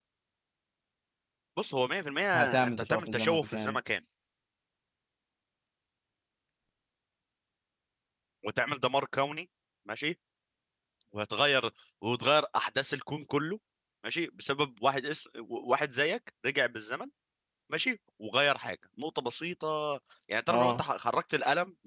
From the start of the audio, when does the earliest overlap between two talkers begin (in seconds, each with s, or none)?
2.3 s